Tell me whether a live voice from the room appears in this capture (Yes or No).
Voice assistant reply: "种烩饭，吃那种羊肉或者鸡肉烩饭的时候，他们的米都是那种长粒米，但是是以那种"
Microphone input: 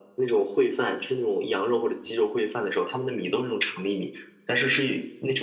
No